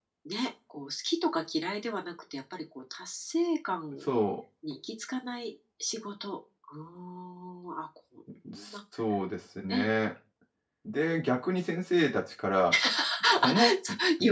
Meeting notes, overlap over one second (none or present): none